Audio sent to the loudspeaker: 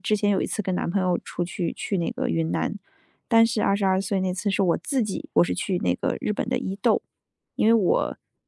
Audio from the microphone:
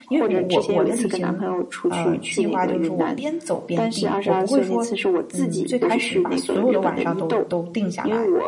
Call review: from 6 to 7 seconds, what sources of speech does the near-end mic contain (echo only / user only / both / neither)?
both